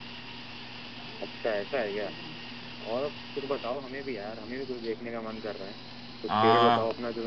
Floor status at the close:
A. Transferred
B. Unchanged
B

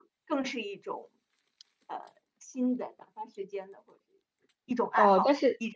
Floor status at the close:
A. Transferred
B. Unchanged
A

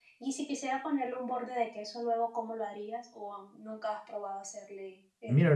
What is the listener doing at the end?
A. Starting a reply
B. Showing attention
A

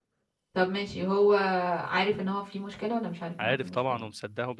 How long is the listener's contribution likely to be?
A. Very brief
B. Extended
B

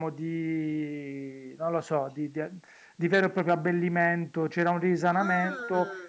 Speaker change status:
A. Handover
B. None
B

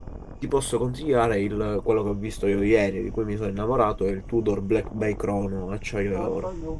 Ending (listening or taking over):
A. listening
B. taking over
B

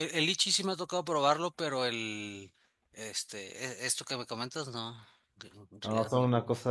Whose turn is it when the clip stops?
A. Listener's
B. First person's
A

